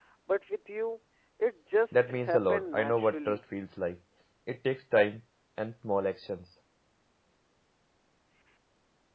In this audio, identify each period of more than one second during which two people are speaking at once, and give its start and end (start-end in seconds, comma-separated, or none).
1.9-3.4